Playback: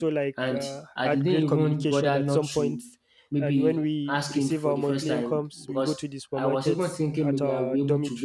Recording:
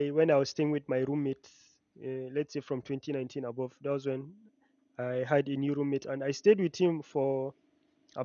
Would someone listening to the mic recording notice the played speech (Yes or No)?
No